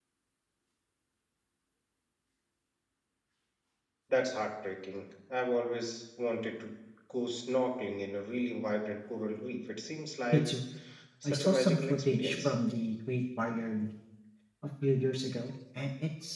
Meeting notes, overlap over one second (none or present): present